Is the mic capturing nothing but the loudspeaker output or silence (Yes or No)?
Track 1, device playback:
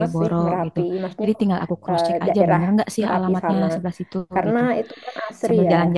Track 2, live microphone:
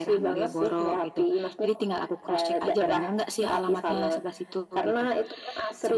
Yes